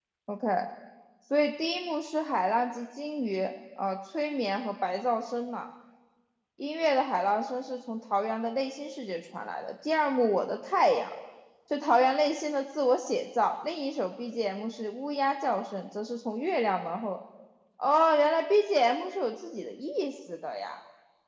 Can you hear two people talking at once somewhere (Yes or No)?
No